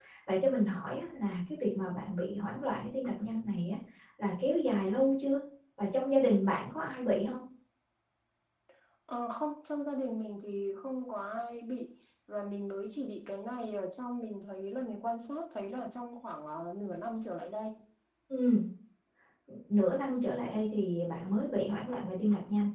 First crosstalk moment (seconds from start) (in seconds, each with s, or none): none